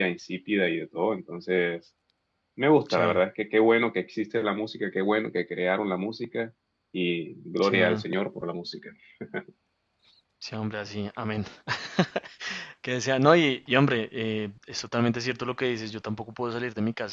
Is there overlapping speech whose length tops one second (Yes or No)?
No